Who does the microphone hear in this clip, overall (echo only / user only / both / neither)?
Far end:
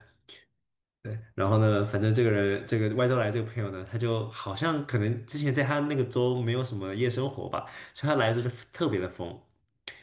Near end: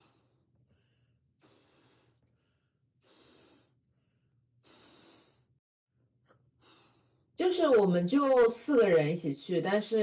user only